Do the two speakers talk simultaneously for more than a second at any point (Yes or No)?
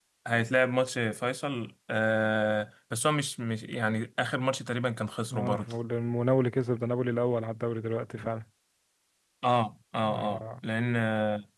No